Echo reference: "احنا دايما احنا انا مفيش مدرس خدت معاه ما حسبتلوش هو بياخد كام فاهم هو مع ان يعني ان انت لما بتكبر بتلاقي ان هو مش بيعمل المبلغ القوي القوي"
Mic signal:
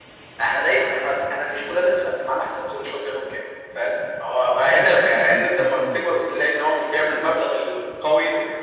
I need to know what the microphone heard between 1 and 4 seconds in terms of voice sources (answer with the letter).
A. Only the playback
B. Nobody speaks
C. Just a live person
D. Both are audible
A